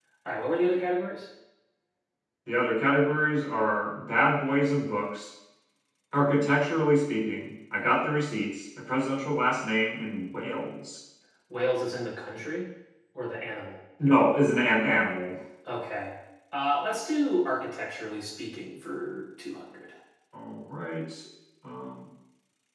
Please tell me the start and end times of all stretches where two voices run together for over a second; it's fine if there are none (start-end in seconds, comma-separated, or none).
none